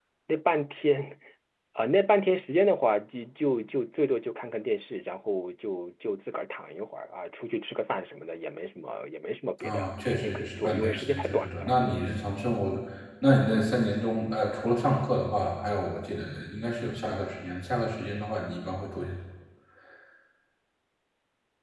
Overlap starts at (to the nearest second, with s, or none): 10 s